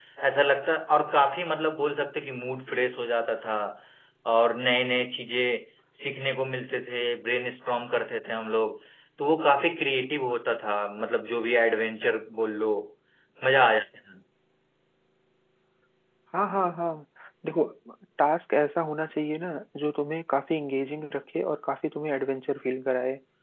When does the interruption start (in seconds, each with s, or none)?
none